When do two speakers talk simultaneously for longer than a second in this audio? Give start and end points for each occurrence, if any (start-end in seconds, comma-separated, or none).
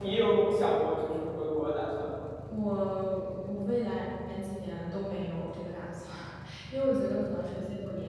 none